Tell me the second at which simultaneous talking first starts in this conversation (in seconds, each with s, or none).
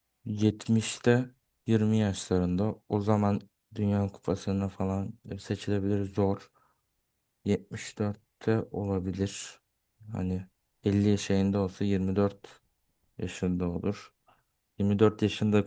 none